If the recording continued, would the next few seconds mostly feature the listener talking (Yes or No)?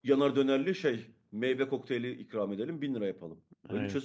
No